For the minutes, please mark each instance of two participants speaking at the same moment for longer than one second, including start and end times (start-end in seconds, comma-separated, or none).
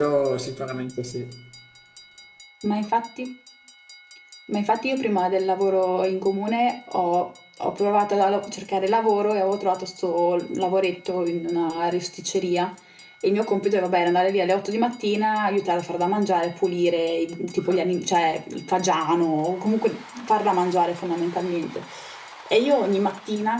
none